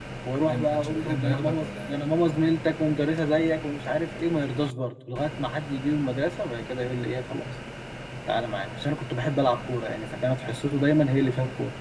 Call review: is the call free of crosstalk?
No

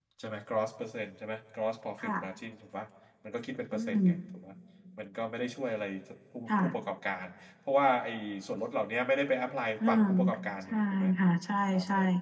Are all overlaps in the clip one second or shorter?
Yes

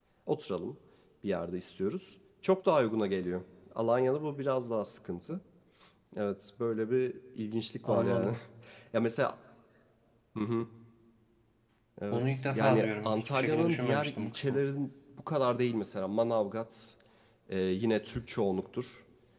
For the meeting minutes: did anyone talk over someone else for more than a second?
Yes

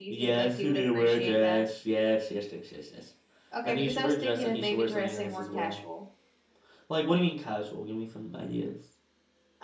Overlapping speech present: Yes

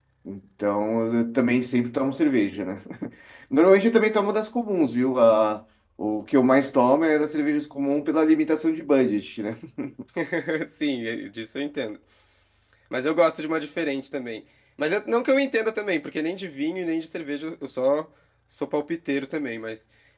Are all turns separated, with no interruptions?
Yes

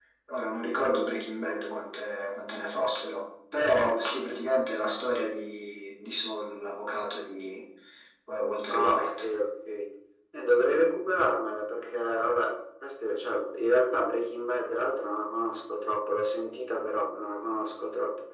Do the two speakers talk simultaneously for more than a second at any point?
No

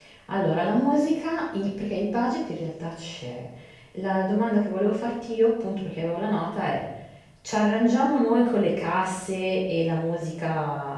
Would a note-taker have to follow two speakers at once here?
No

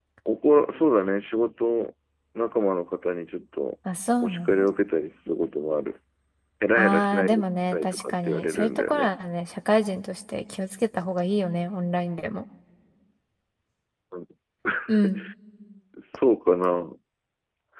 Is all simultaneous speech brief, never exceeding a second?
No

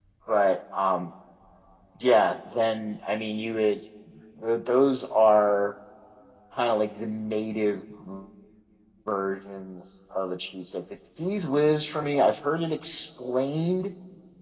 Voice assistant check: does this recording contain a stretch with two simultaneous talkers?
No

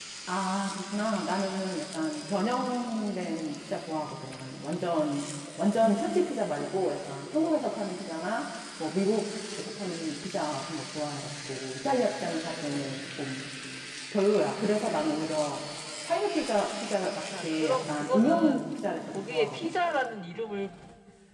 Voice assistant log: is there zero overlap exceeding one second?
No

